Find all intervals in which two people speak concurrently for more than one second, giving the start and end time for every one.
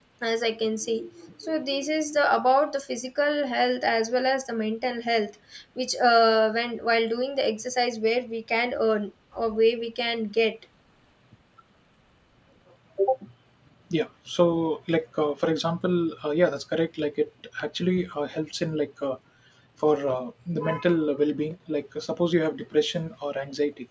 none

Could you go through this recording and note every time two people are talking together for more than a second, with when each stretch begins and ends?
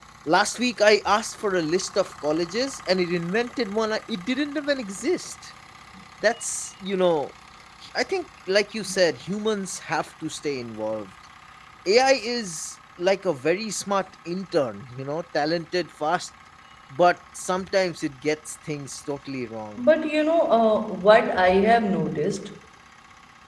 none

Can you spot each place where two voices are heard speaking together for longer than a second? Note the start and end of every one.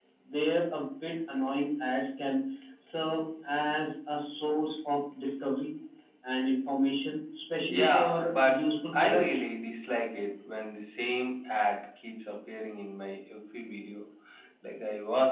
7.7-9.4

